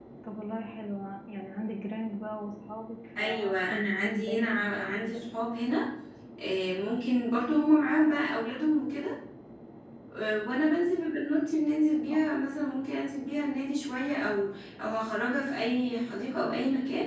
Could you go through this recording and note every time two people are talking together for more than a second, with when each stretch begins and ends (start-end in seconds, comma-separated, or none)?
3.2-5.2